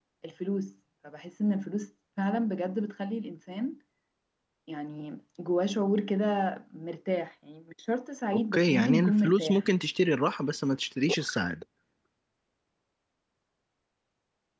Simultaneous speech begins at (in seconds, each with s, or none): 8.3 s